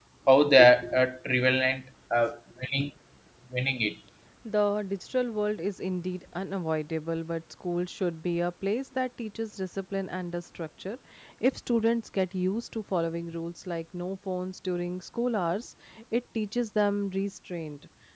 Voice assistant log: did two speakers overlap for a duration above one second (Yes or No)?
No